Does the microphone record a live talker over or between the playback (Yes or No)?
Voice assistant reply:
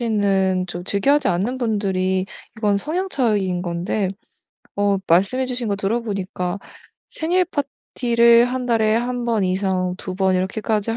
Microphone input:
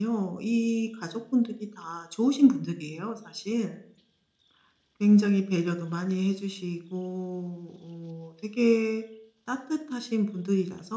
Yes